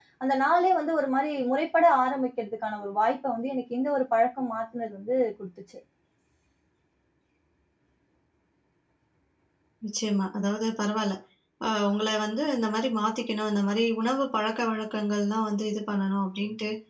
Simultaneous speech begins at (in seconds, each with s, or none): none